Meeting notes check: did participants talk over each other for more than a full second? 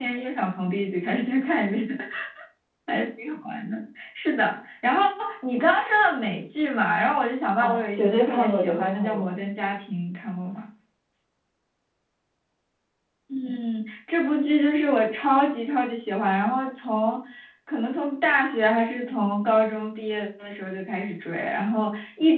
Yes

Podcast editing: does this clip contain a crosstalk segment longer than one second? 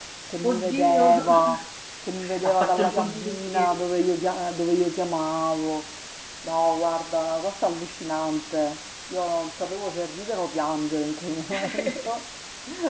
Yes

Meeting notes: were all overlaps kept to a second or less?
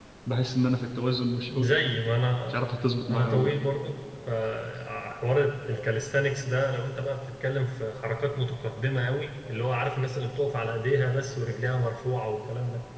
Yes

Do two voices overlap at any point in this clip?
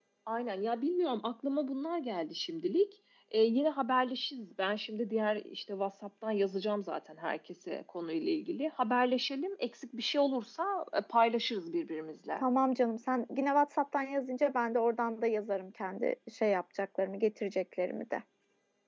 No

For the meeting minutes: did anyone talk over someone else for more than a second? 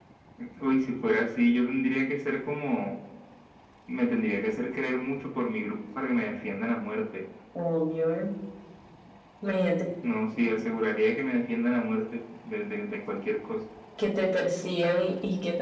No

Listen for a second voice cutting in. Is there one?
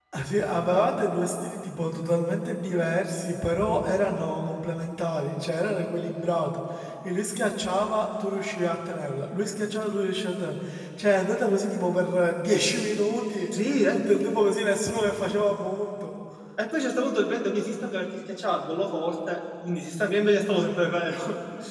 No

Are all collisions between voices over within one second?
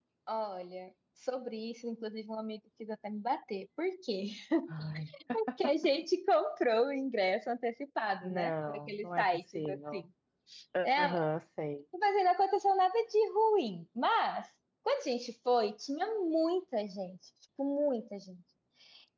No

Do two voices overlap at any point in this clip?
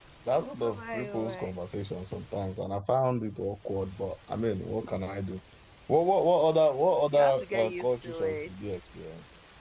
Yes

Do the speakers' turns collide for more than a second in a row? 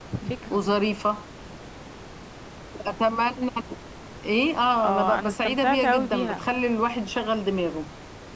Yes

